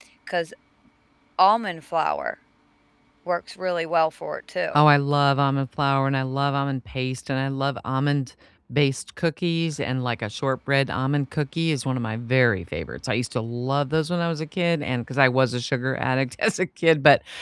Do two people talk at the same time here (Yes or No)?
No